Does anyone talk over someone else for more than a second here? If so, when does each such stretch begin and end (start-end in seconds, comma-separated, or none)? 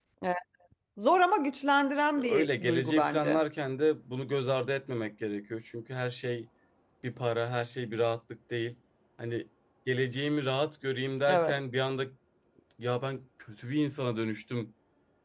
2.2-3.4